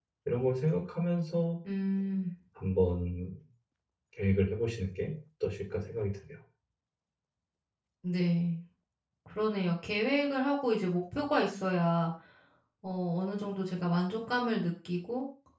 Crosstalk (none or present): none